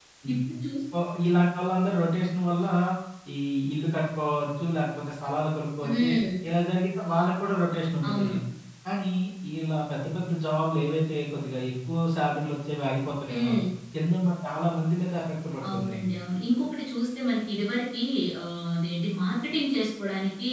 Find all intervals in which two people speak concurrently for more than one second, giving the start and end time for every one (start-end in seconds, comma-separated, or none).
none